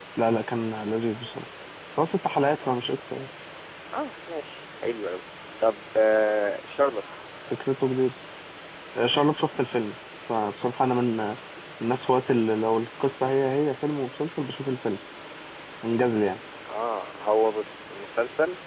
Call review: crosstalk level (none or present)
none